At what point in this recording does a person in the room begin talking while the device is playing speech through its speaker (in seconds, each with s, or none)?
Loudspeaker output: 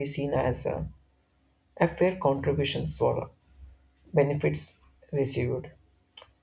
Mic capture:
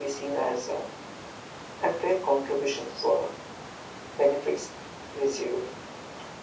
none